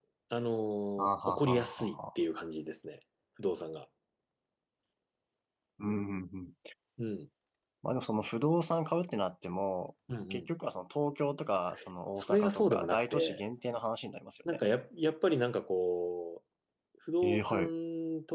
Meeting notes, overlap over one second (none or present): present